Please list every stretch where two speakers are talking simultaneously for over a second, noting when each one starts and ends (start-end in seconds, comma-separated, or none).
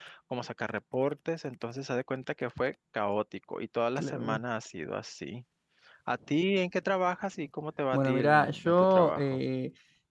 7.9-9.4